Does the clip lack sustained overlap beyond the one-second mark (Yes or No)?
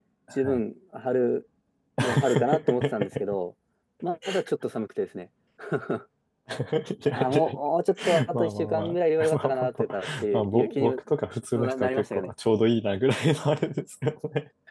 No